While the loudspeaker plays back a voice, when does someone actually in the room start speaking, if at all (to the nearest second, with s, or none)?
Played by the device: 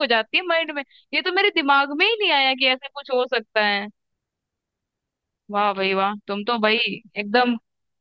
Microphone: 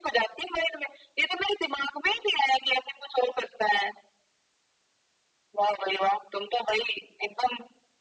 none